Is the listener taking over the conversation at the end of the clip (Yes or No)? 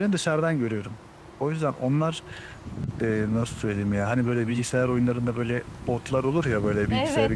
Yes